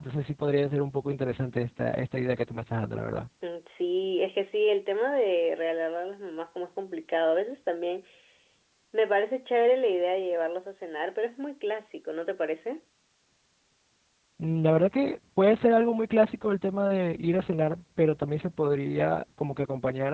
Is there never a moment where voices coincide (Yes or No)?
Yes